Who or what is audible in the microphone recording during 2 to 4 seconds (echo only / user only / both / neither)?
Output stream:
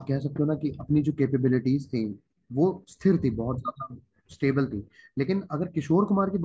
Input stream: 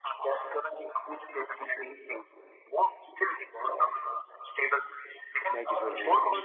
echo only